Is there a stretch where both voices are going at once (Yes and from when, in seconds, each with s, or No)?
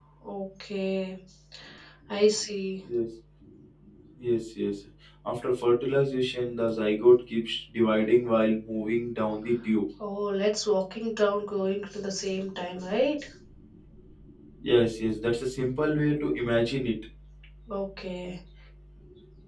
No